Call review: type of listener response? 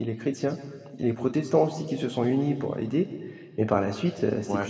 taking over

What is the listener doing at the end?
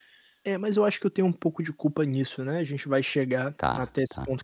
listening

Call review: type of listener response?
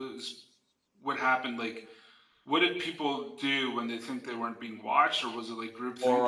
taking over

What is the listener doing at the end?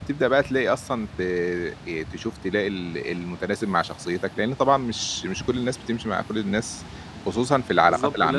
taking over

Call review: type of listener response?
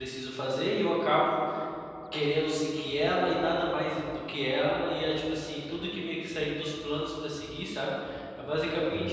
listening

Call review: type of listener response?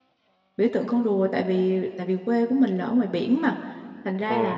listening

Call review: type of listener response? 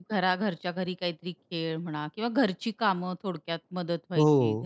taking over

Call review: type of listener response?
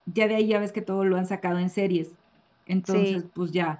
listening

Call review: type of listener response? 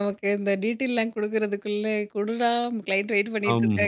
taking over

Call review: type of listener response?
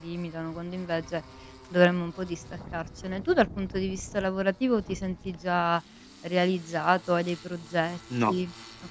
taking over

